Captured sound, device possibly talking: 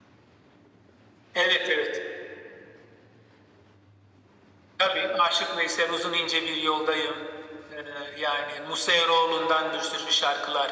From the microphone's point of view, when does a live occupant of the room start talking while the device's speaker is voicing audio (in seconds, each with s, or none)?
none